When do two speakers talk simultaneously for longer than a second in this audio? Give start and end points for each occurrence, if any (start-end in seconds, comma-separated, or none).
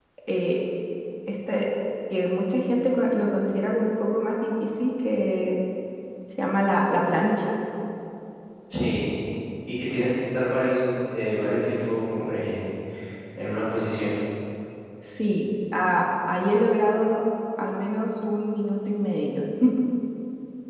none